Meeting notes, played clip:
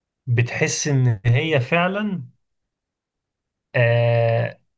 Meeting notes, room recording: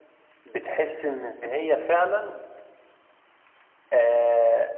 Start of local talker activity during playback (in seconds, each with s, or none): none